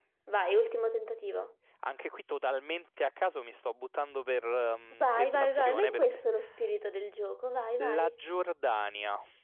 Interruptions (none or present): present